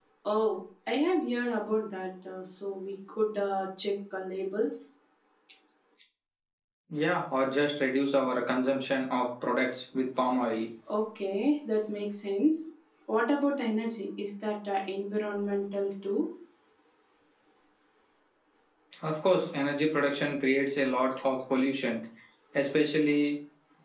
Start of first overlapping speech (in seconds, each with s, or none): none